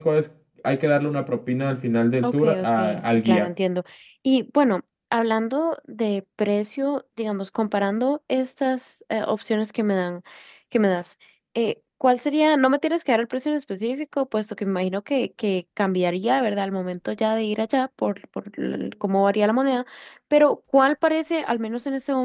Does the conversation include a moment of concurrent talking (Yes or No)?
Yes